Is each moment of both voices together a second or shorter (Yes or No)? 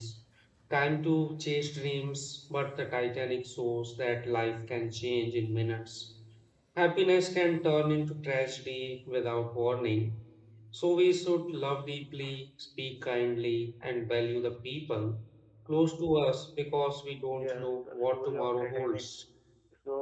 No